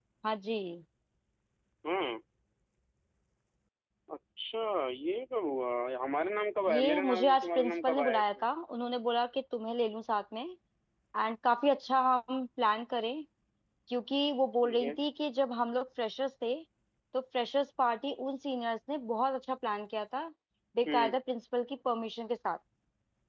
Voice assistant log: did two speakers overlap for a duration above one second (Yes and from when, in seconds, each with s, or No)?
Yes, from 6.7 s